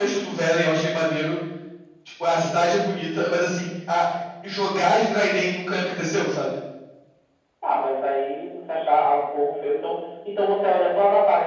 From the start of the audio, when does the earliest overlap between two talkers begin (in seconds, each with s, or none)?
none